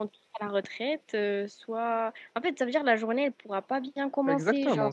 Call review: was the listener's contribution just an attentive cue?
No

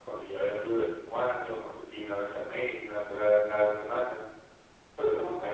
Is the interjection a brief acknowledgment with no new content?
No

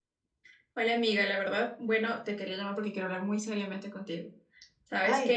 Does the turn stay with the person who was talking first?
Yes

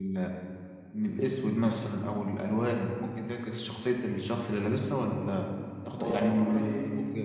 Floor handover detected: No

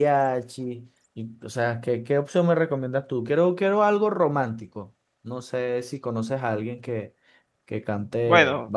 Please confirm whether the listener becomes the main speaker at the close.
Yes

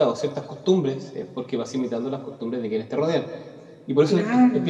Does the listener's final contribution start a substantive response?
No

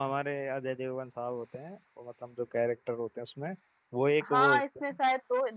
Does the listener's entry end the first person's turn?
Yes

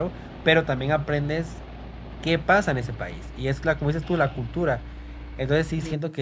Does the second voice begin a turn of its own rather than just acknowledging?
No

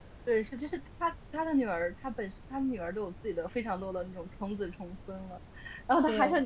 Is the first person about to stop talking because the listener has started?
No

